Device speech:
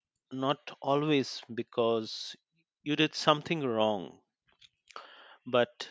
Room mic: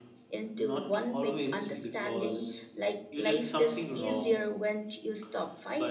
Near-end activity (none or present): present